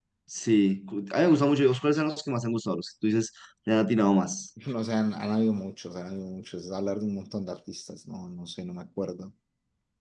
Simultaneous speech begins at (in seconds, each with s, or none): none